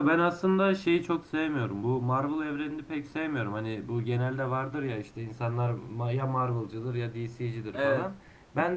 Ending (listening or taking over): listening